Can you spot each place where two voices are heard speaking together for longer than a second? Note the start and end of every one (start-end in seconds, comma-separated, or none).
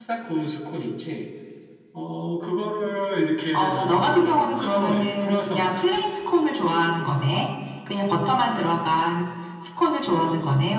3.5-5.9